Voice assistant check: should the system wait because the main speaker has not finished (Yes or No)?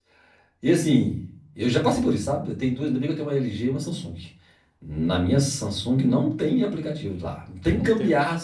Yes